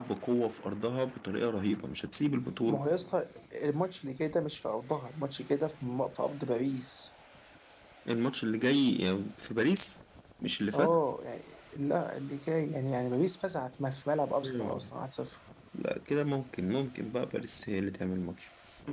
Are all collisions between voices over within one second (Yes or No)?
Yes